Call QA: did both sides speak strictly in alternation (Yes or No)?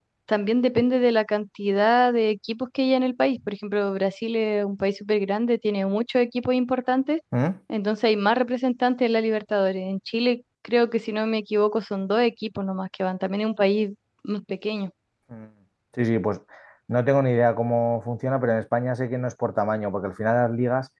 Yes